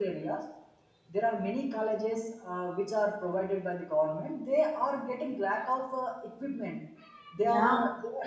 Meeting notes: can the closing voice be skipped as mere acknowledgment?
Yes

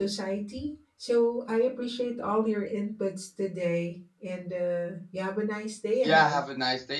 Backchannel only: No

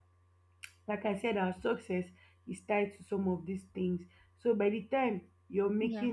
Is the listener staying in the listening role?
Yes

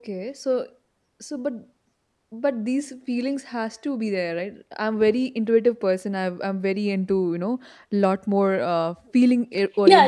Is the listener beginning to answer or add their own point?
Yes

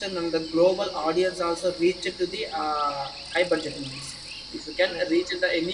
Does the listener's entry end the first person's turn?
No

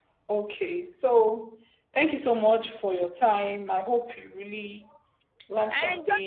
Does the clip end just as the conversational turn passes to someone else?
Yes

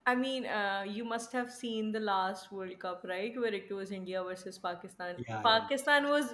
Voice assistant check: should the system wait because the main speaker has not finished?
Yes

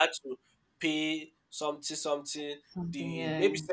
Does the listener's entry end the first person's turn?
No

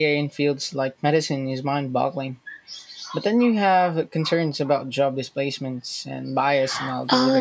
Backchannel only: No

